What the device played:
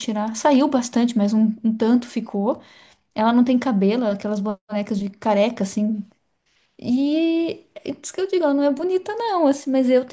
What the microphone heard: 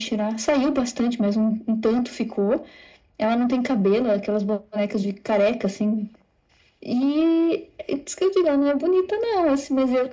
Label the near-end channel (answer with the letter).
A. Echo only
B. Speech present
A